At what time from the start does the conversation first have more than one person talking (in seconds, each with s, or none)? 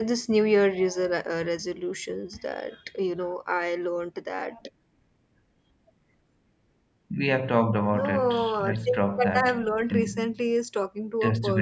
7.9 s